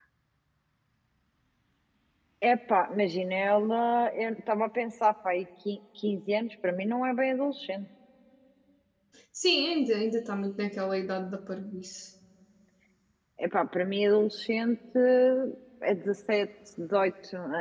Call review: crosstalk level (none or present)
none